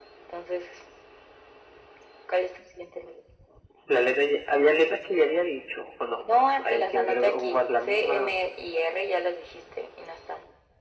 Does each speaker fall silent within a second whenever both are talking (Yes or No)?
No